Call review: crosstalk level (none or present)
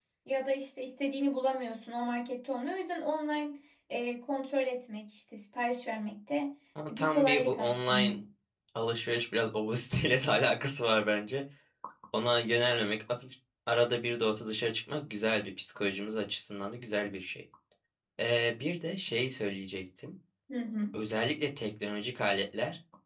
present